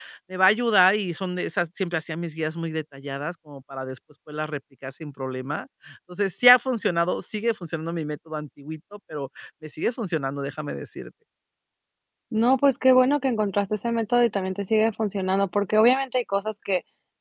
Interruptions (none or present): none